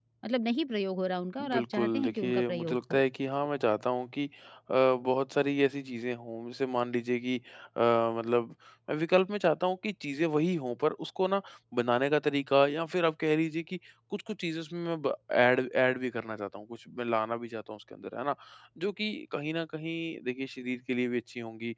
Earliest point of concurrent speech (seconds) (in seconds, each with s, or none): 1.4 s